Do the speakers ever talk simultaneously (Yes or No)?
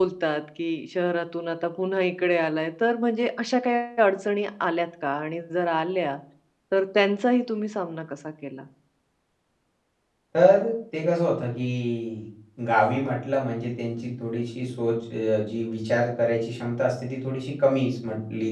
No